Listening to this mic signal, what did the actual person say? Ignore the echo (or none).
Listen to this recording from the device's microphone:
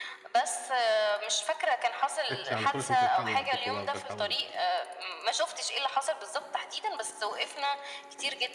تاكسي على طول، عشان تلحقوا وقتكم بقى وتلحقوا الأتوبيس.